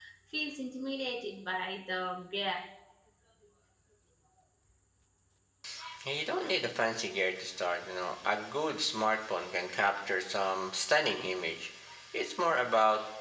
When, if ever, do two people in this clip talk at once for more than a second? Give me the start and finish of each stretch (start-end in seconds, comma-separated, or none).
none